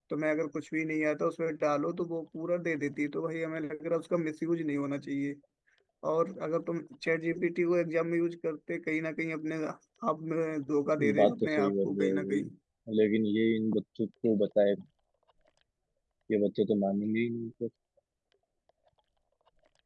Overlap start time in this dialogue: 11.0 s

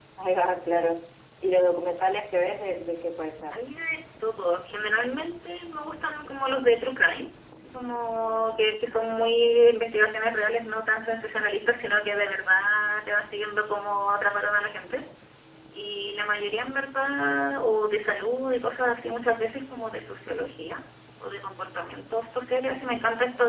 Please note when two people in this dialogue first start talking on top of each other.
none

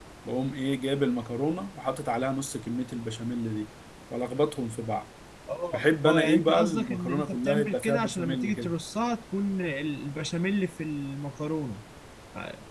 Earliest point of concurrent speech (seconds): 5.7 s

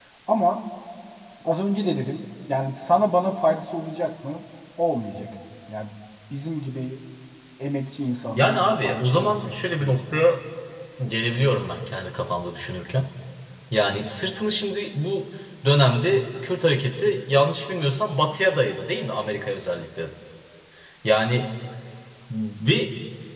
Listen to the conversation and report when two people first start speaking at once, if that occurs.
8.4 s

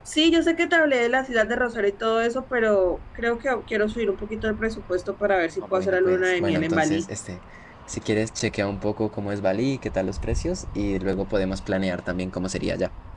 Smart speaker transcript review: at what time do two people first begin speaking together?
5.6 s

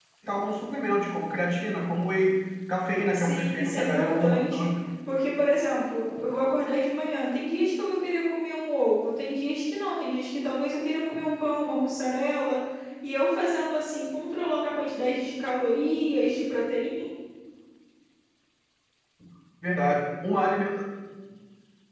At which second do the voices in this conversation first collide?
3.1 s

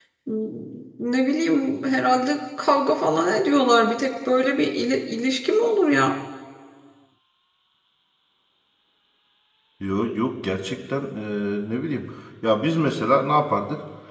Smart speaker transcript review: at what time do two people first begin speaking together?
none

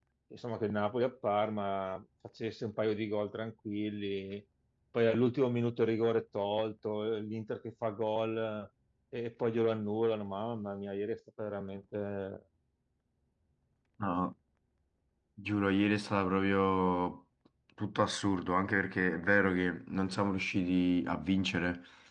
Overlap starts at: none

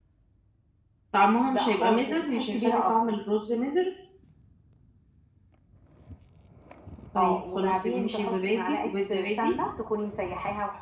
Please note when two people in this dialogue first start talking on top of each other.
1.5 s

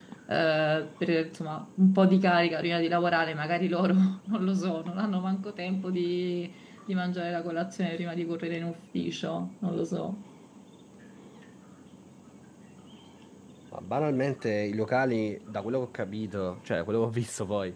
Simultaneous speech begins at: none

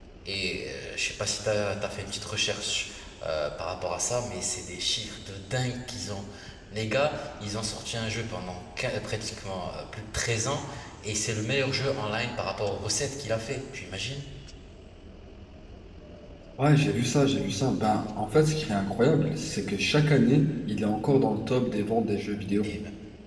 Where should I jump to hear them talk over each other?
none

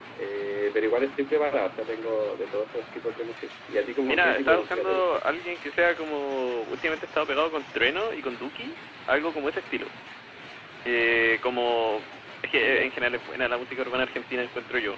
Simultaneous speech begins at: 4.0 s

